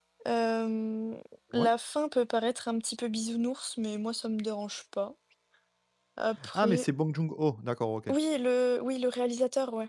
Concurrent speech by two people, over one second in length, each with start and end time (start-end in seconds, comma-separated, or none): none